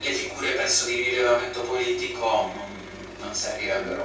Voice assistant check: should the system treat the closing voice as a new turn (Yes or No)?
Yes